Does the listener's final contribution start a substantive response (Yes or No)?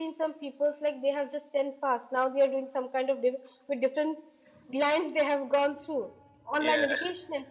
No